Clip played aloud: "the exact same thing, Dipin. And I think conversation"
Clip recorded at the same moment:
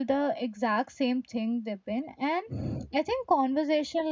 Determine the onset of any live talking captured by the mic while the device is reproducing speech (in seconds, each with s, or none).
none